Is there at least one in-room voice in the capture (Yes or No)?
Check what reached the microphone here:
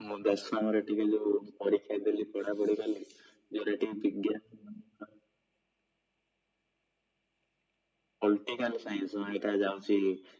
No